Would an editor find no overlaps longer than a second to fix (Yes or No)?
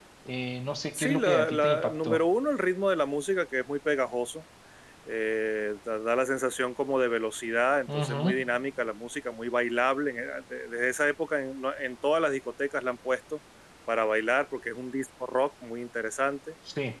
No